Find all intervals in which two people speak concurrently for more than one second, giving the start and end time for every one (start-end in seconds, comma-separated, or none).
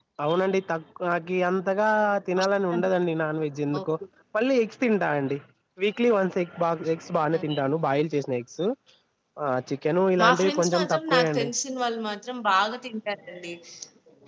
10.2-11.5